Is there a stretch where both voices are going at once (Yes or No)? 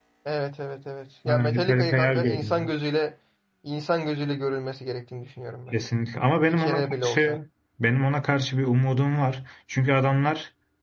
Yes